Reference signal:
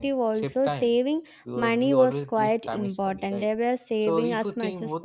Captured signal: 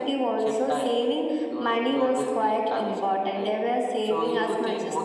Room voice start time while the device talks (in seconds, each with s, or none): none